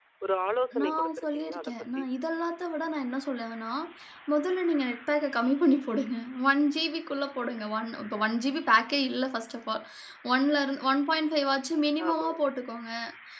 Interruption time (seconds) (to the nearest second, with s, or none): 1 s